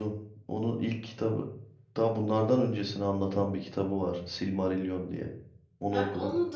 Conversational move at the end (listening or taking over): taking over